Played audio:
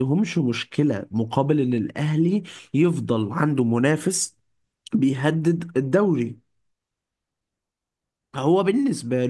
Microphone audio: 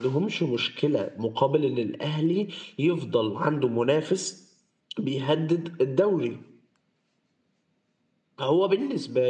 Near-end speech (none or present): none